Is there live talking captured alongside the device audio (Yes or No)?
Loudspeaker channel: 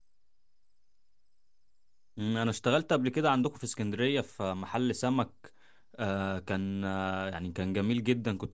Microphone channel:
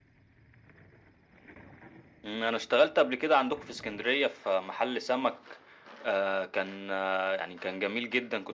No